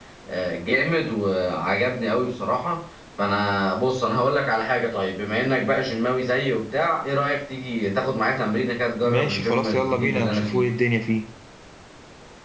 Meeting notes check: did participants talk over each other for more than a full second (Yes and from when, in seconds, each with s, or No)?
Yes, from 9.0 s